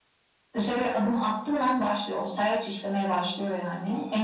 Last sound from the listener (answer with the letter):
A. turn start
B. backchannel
B